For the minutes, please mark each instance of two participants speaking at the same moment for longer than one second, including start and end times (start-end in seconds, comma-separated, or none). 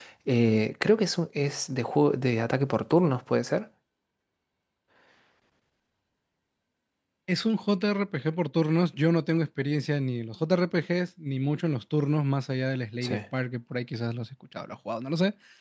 none